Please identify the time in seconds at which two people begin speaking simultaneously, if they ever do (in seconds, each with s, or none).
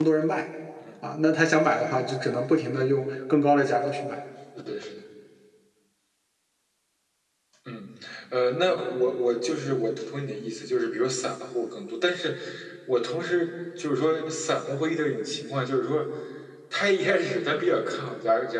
none